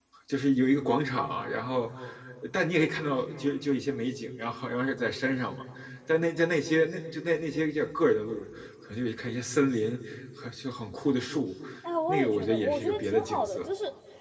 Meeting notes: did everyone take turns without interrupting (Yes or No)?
No